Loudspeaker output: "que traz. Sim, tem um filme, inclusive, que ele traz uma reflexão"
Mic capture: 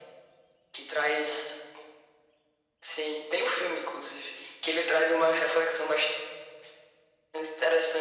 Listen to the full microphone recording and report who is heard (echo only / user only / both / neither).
echo only